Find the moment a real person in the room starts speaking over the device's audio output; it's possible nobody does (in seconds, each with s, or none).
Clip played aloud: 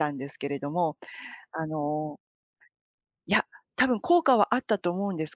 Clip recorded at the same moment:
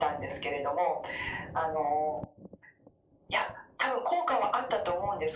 none